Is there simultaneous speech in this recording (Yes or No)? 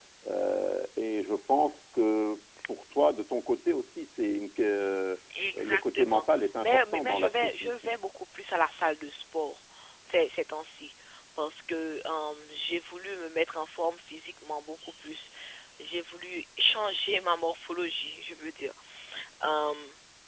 Yes